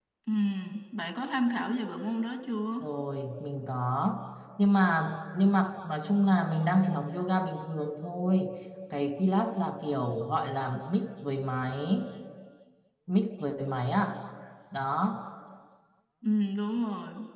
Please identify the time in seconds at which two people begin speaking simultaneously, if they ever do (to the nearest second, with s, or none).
none